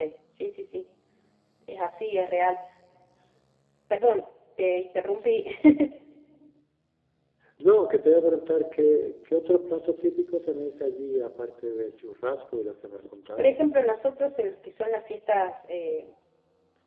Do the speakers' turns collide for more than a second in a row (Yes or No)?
No